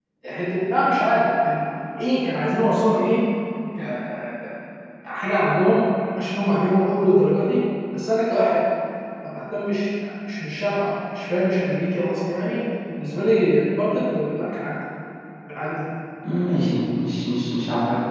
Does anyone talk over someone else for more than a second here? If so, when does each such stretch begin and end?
none

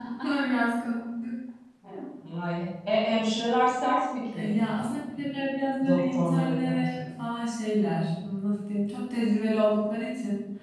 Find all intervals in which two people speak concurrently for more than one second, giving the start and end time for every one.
5.8-7.0

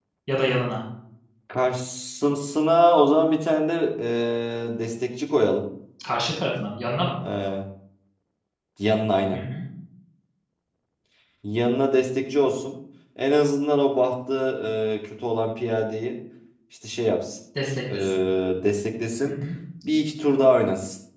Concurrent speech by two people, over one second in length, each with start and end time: none

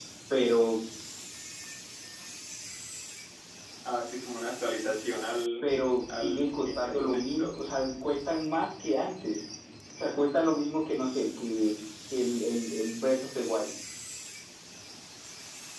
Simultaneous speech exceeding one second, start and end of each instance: 6.1-7.6

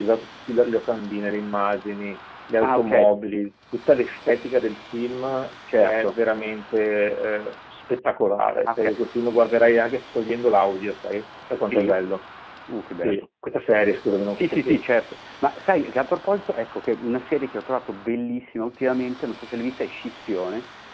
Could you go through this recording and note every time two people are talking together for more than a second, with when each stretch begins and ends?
none

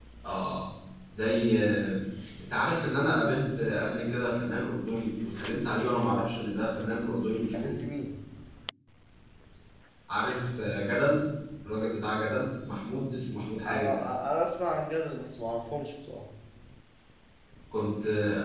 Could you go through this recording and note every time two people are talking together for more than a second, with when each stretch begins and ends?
none

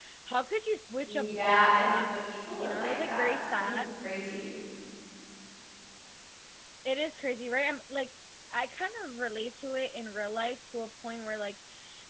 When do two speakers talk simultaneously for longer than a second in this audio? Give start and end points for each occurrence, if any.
1.0-3.7

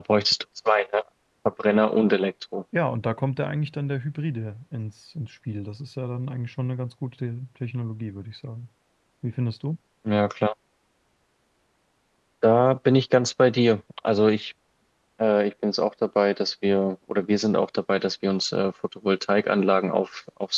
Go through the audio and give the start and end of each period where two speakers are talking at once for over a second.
none

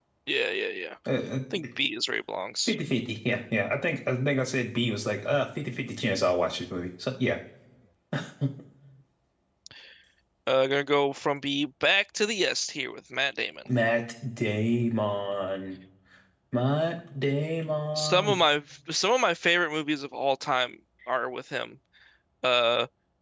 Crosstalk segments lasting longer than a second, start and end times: none

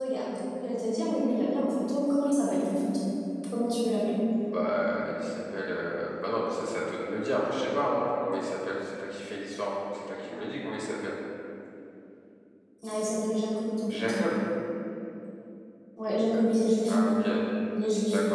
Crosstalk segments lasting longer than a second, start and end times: none

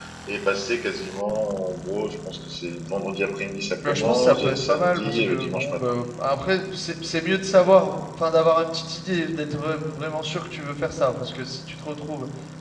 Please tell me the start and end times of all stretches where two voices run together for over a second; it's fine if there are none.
3.9-5.8

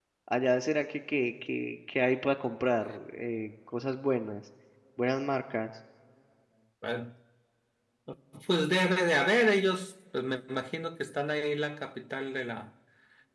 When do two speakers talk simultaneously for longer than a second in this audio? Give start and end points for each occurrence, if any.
none

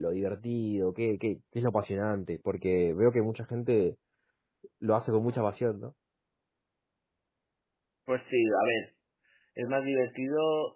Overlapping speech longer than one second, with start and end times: none

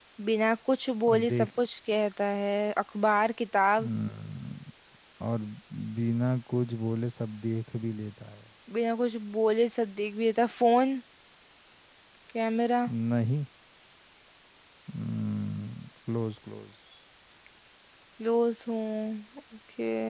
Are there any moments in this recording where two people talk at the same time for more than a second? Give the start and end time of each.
none

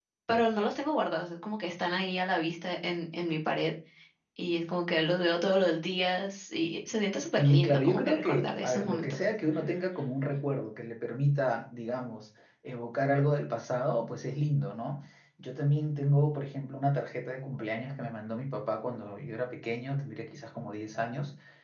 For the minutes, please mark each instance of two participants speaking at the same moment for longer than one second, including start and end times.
7.4-9.2

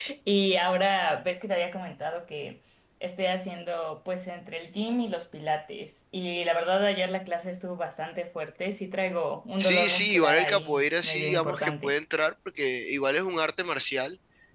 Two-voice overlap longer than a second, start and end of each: 9.6-11.9

